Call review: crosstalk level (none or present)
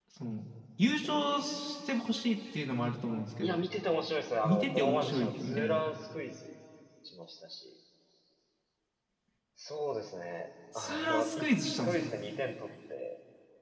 present